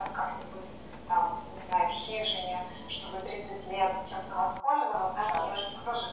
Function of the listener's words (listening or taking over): listening